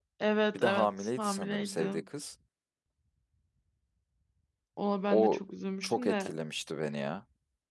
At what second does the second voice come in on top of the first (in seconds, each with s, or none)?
0.5 s